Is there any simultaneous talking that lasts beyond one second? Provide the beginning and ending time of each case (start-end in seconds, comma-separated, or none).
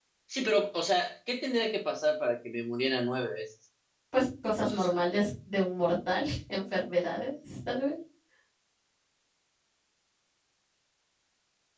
none